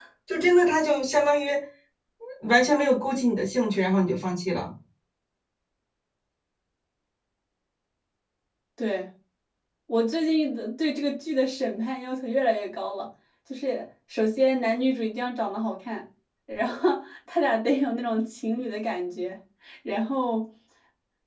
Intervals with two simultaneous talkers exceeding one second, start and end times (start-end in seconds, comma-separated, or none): none